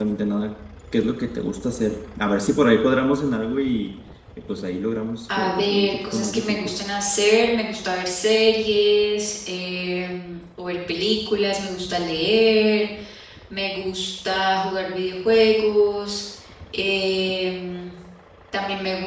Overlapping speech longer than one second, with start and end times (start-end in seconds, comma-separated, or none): 5.4-6.8